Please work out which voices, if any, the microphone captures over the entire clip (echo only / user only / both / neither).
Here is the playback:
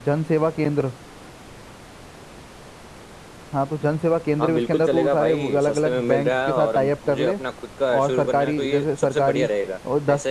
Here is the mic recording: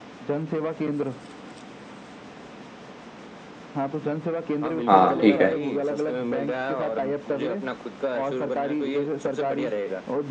both